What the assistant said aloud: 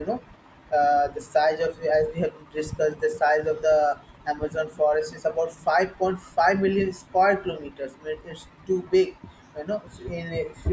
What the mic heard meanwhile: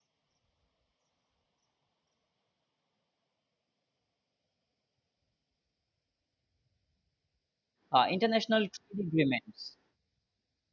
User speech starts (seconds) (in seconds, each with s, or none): 7.9 s